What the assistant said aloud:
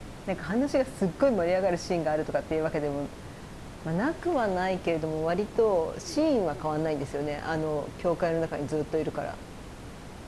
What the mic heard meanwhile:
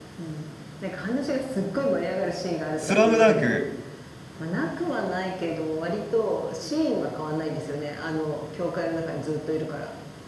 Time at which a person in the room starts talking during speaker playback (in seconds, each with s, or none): 2.8 s